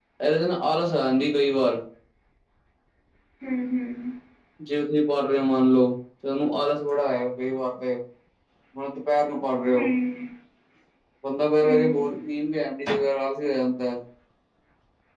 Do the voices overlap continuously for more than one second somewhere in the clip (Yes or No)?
No